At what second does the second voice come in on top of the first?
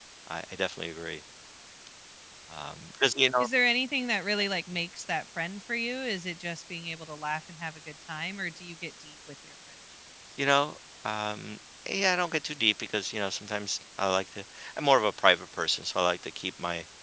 none

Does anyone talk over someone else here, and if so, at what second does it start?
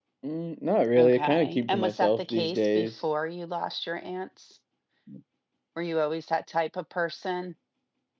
1.0 s

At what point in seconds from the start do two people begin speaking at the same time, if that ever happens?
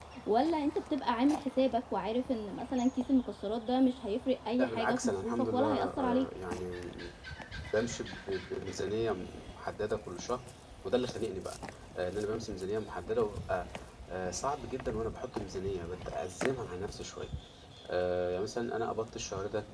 4.6 s

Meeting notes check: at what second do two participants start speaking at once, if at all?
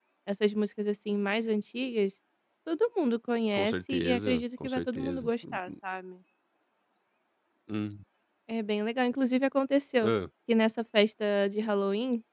3.5 s

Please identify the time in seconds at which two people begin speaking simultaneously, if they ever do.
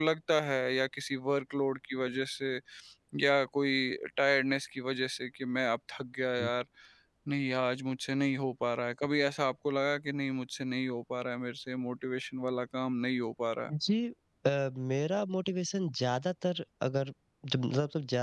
none

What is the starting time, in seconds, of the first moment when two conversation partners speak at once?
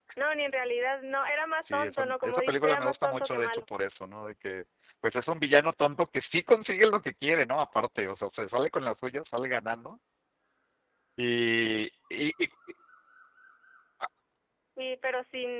1.6 s

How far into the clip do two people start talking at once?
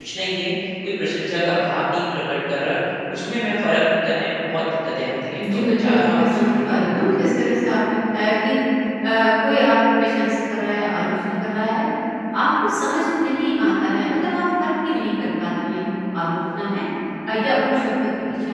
5.4 s

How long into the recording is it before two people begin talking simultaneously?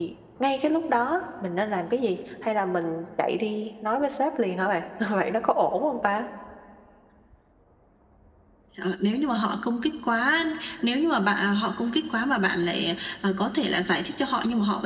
none

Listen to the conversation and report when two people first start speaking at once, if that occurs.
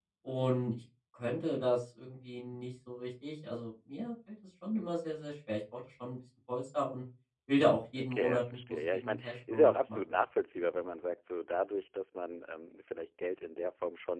8.0 s

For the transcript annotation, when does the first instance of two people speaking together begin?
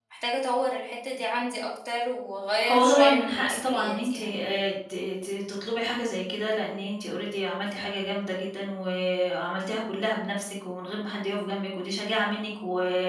2.5 s

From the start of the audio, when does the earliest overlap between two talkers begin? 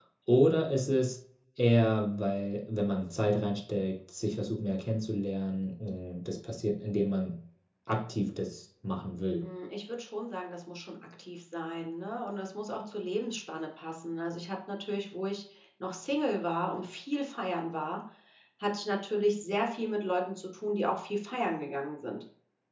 none

